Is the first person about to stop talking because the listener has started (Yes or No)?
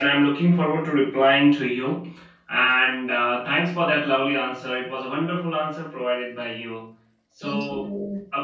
No